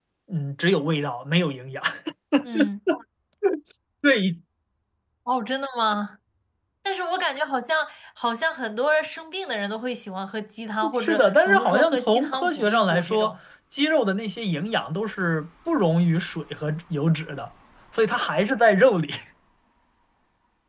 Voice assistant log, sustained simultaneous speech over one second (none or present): present